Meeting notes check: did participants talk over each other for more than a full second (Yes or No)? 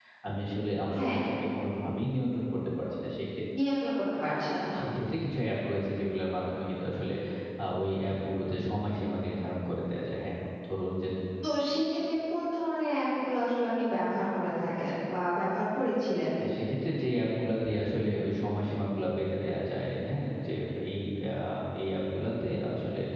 No